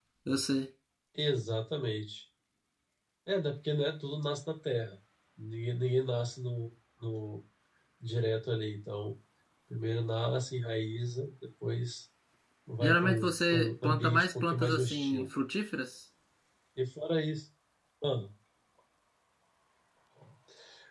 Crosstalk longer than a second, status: present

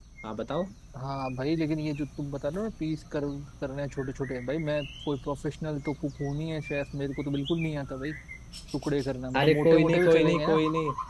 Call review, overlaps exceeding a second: present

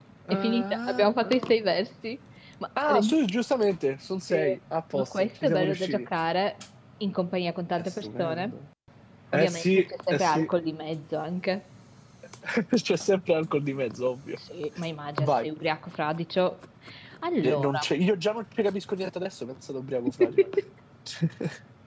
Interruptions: present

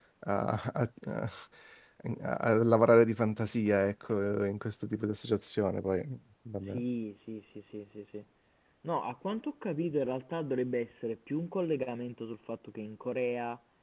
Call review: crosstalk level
none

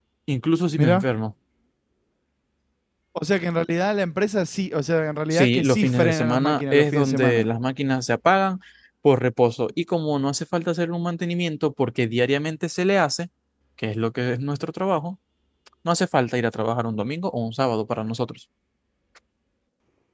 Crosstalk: present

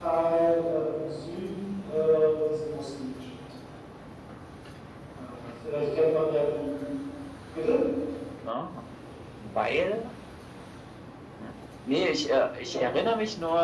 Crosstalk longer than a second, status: none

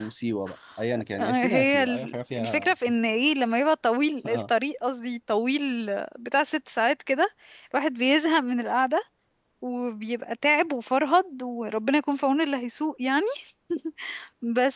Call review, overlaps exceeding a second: present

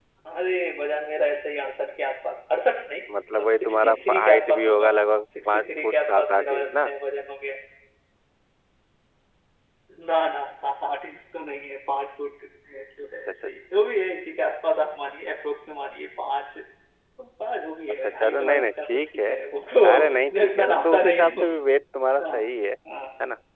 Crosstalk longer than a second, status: present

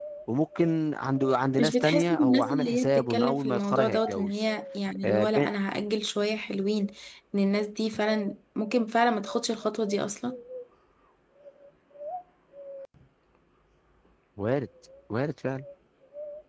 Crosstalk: present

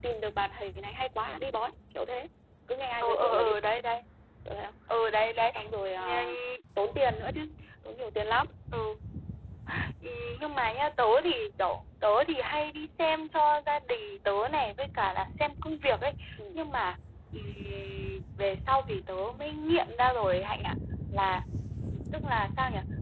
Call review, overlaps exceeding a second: none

